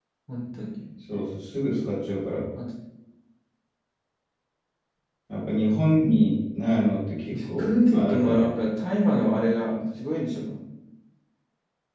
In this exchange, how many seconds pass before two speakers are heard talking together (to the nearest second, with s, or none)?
7 s